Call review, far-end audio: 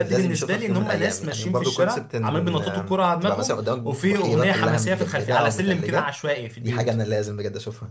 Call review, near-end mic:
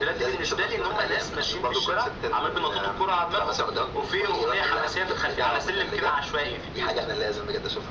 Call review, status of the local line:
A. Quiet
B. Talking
A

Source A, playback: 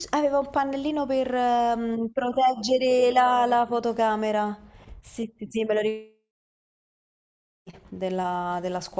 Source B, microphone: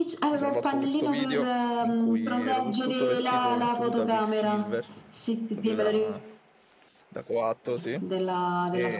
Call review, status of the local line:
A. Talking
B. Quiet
A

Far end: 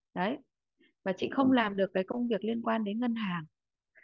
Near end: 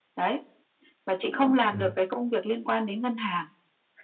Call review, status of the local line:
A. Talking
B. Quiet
A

